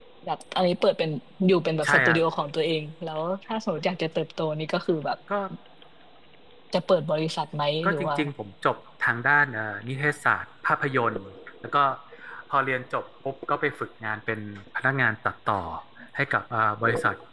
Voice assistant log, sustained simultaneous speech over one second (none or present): none